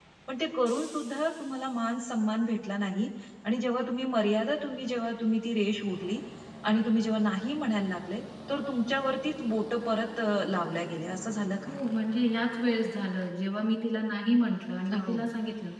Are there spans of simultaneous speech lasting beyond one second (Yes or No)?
No